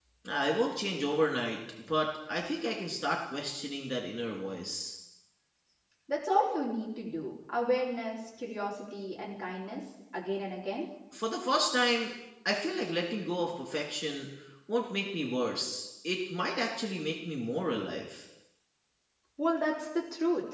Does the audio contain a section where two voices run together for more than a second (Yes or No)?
No